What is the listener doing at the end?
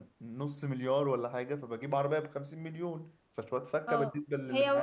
taking over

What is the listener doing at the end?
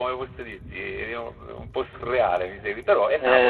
taking over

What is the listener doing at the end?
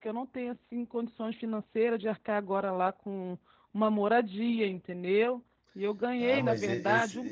taking over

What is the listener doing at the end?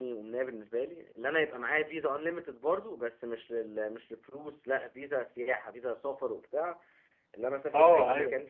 listening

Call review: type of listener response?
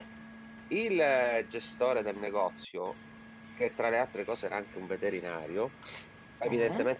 listening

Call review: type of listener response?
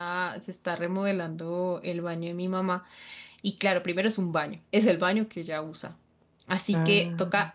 listening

